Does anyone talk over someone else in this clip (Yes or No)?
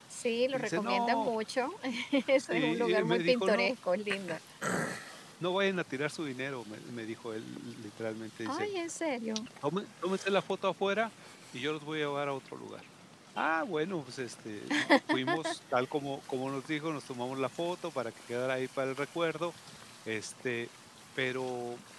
Yes